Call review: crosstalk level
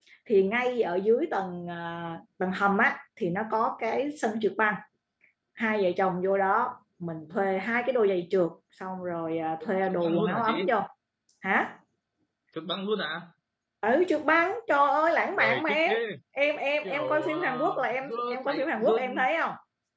present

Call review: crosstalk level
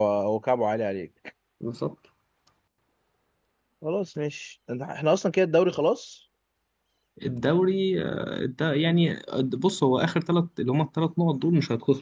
none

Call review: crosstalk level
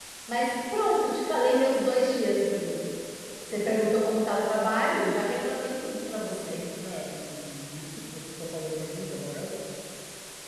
none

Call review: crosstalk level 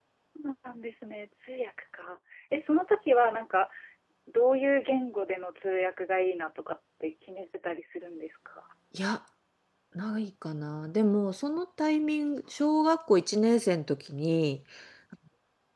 none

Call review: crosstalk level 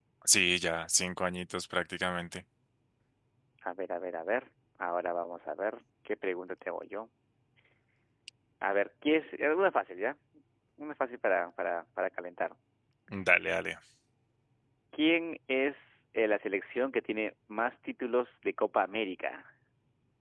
none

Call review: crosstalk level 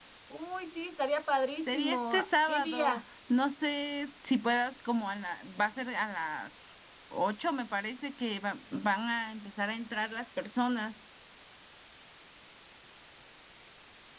present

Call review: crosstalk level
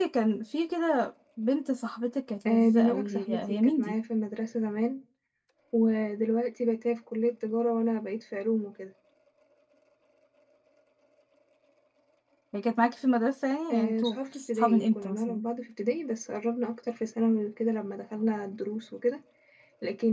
present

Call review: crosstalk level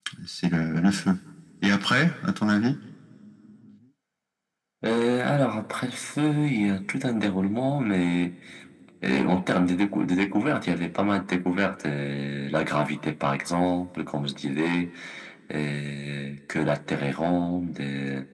none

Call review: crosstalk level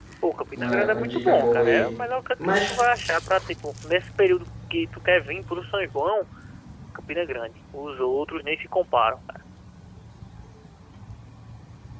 present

